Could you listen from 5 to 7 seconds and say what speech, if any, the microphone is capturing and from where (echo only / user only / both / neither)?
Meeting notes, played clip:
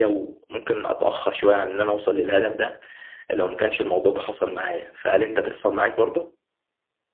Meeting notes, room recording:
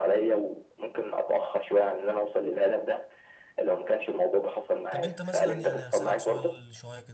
both